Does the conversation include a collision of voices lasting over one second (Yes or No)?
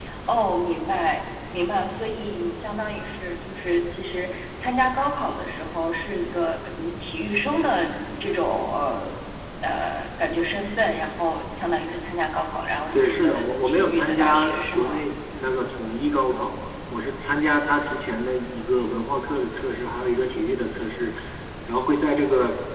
Yes